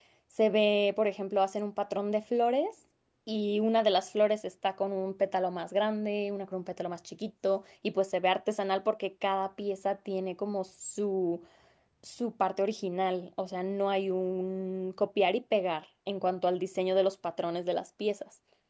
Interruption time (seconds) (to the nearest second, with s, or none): none